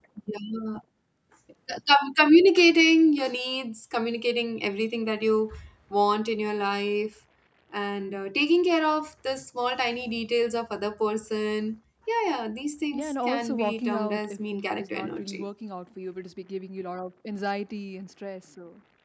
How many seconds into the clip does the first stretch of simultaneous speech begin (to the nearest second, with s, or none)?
13 s